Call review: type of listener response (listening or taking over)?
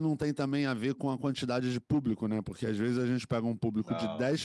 listening